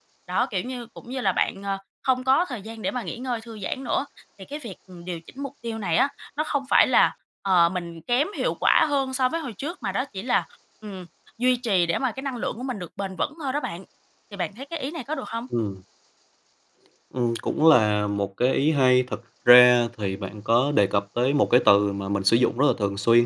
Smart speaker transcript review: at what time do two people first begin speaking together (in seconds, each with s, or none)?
none